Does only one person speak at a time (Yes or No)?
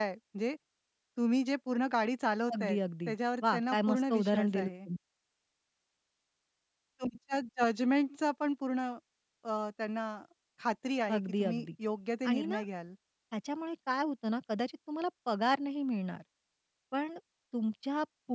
No